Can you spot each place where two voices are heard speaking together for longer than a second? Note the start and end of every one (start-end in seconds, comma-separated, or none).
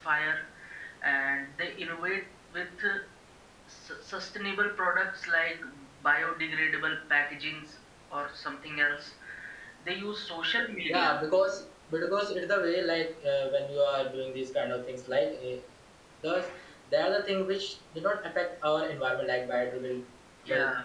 none